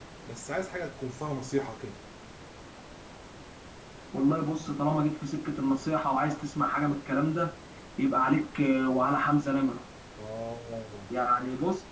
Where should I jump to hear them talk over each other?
none

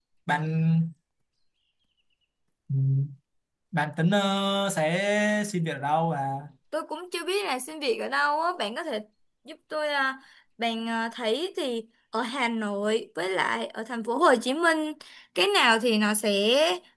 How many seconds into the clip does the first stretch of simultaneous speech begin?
none

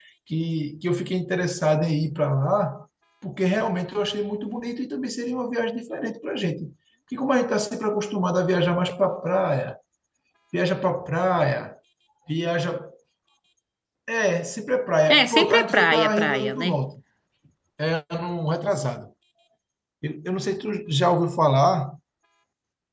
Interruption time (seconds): 15.1 s

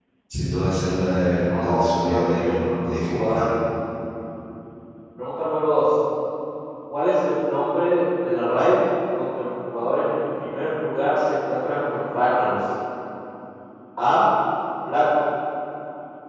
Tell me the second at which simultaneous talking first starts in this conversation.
1.3 s

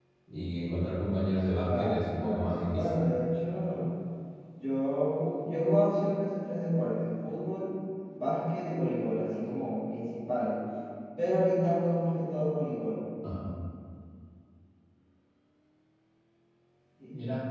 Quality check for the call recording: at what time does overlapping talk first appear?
1.6 s

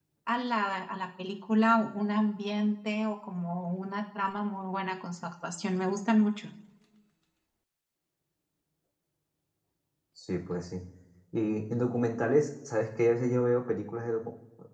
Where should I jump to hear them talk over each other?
none

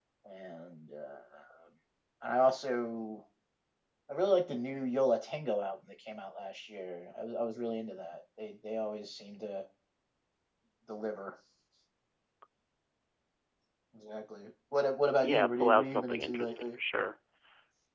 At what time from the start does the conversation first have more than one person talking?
15.2 s

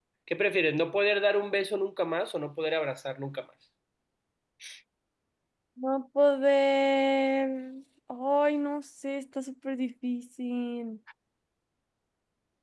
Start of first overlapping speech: none

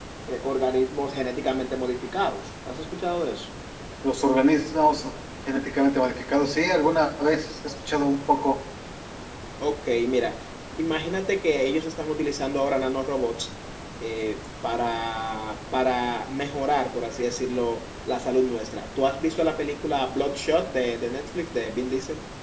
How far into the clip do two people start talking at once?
none

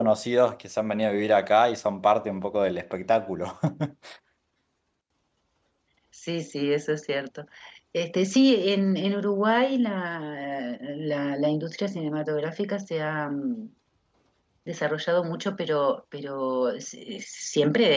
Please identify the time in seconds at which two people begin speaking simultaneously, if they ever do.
none

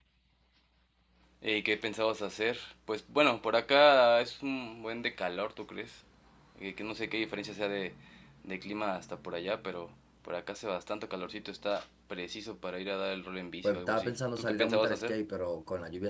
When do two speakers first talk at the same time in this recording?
13.6 s

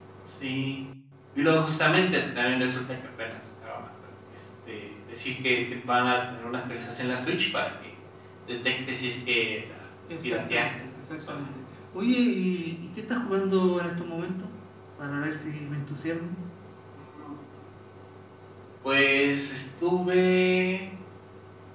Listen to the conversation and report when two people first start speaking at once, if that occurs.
10.1 s

